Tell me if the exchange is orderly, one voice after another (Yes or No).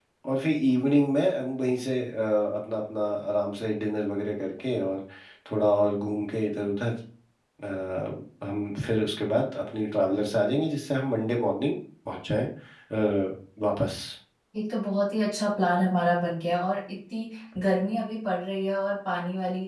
Yes